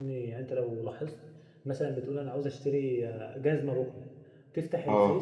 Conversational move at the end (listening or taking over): listening